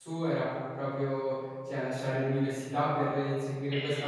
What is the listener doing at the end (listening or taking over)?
listening